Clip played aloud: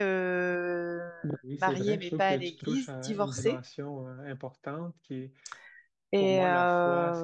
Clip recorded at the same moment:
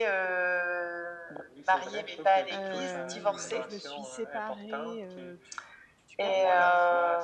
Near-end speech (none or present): present